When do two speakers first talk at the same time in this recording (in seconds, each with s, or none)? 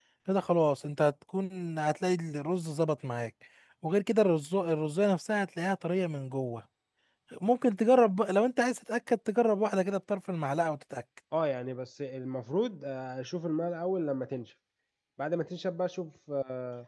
none